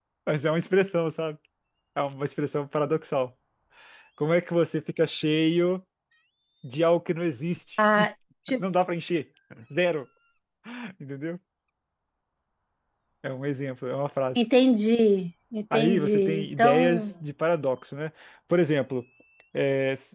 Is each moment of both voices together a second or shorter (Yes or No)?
No